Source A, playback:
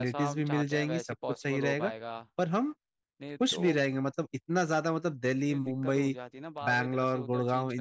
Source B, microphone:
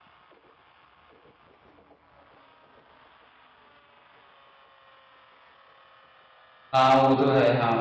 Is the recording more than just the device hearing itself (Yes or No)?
Yes